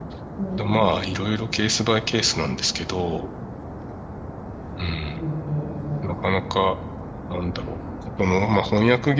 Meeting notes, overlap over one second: none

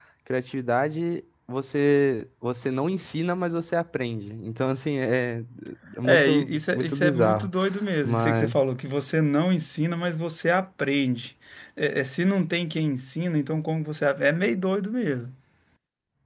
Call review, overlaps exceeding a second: present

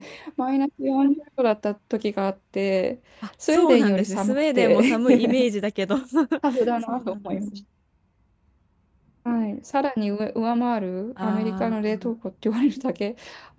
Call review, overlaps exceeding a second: present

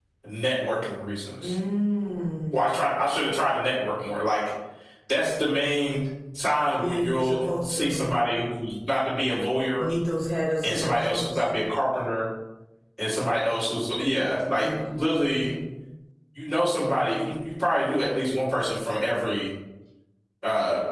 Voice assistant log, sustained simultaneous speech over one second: present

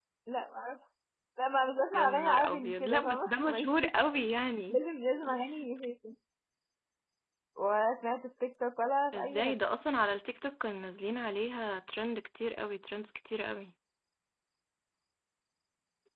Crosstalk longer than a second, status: present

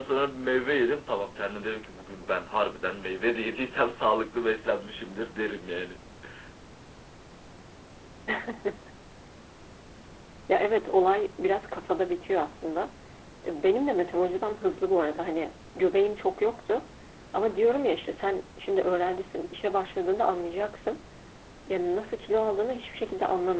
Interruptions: none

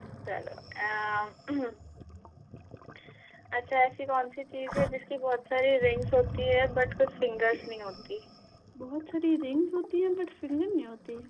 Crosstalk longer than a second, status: none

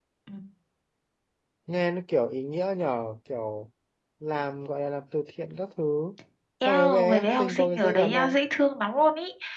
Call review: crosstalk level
present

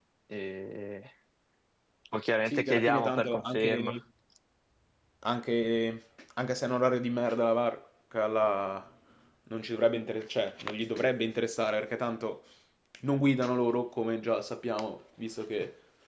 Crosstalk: present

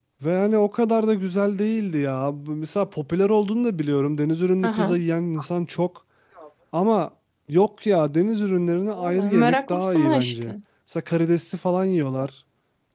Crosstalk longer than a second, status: present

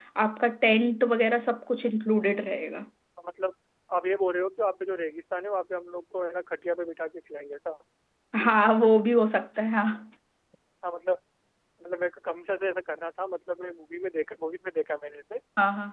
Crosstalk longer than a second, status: none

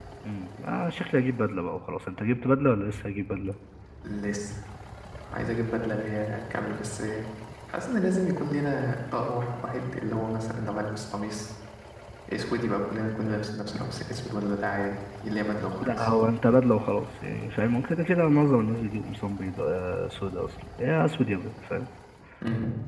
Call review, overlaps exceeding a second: none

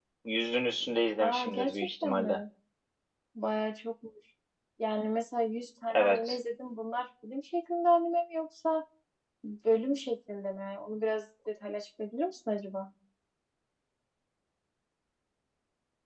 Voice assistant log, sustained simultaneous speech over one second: present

